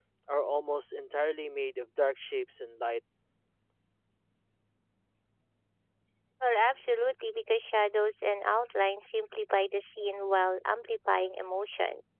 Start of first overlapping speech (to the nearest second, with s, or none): none